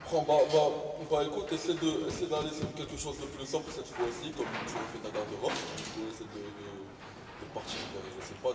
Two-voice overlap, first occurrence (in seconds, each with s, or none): none